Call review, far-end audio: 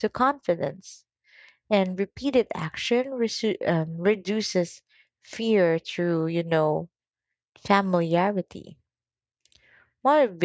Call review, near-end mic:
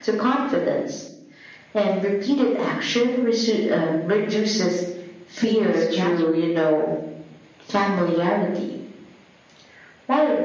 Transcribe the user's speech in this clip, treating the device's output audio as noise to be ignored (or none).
fades rapidly.